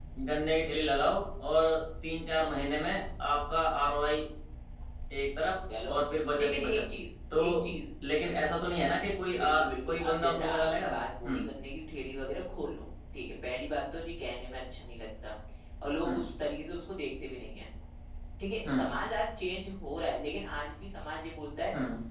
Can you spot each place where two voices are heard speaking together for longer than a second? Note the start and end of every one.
9.3-10.9

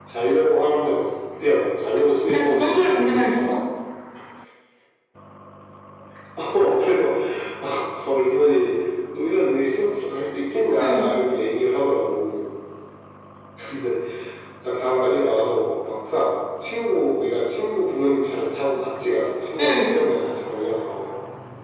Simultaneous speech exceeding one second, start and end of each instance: 2.3-3.6

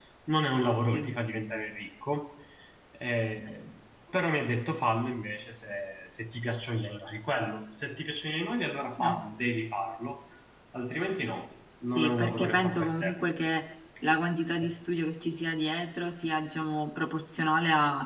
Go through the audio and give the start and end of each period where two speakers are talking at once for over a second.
12.0-13.2

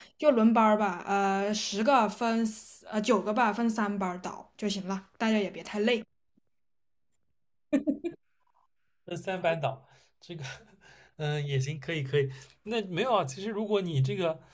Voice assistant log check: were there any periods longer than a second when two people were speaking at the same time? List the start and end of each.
none

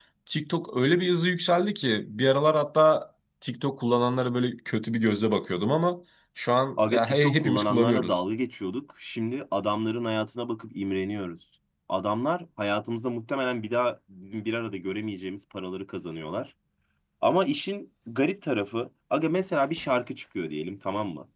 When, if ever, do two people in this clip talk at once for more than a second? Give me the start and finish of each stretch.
6.8-8.2

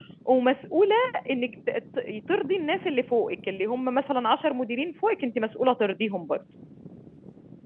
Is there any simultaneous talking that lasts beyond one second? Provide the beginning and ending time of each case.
none

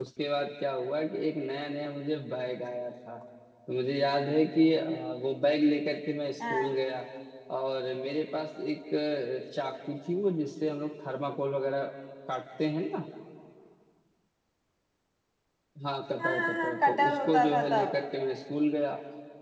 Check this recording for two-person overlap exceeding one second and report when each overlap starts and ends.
16.2-17.9

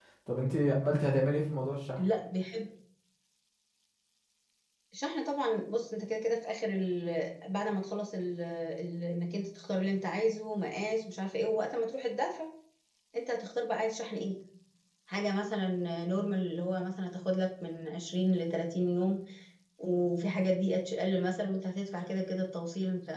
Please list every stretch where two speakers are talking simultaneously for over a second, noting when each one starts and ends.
none

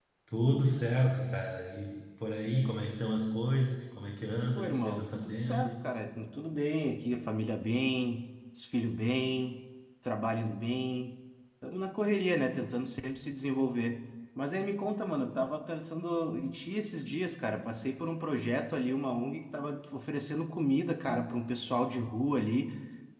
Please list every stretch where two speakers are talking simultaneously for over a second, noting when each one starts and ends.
4.5-5.8

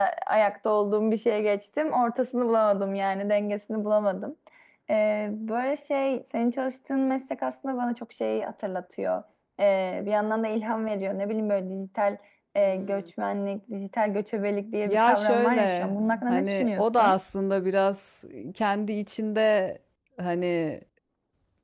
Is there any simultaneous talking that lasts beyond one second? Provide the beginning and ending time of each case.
14.8-17.2

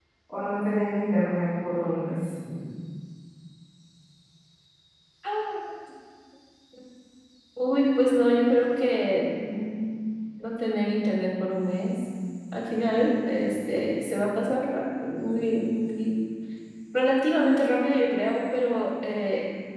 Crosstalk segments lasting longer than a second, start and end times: none

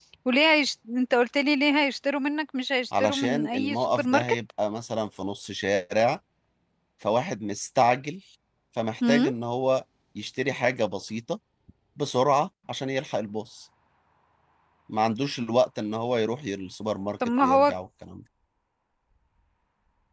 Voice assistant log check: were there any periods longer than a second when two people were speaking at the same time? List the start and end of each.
3.0-4.3

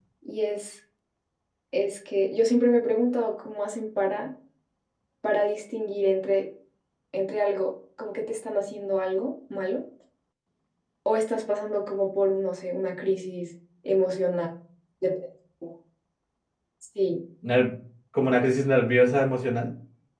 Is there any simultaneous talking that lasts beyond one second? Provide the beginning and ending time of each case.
none

